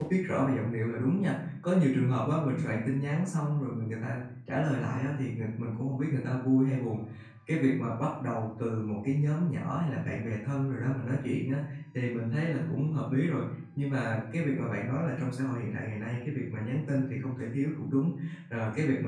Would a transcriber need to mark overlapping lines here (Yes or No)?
No